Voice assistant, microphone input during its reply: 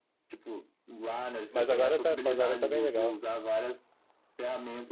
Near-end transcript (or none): mas agora tá, agora tá bem legal.